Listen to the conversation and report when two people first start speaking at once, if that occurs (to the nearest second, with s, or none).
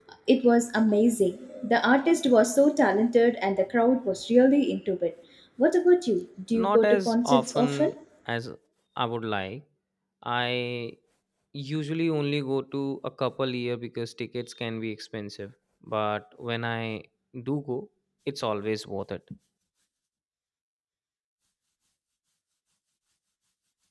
7 s